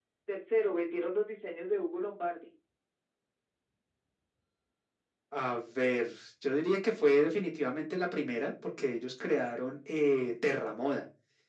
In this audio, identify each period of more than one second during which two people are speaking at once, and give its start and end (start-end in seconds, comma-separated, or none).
none